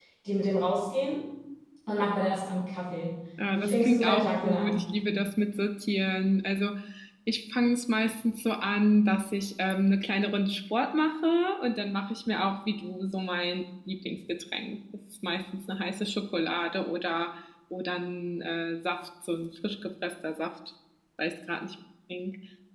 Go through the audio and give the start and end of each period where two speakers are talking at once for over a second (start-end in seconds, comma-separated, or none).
3.5-4.8